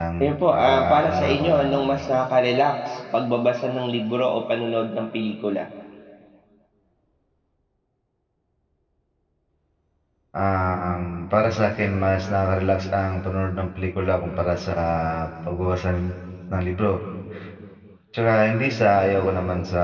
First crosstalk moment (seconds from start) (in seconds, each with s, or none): 0.5 s